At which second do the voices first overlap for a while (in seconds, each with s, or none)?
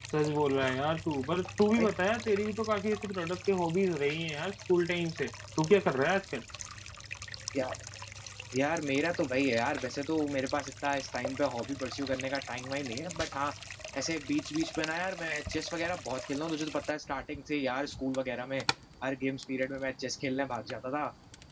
none